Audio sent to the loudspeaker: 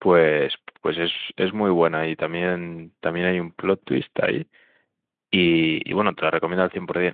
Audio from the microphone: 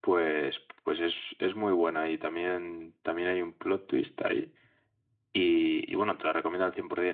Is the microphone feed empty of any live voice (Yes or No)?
Yes